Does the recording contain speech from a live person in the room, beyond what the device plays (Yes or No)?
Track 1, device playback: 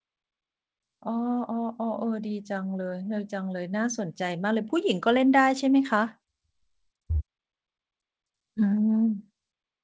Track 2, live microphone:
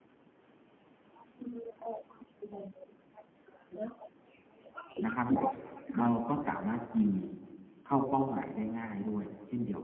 Yes